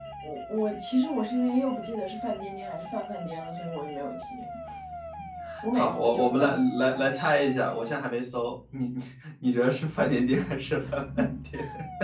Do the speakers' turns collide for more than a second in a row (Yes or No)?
Yes